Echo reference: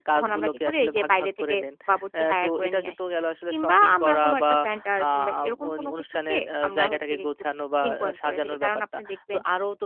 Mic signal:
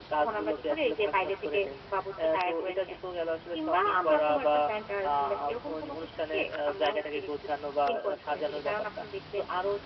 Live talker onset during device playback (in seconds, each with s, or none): none